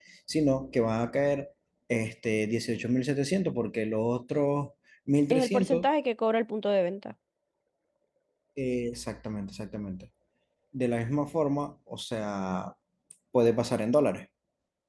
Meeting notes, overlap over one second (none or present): none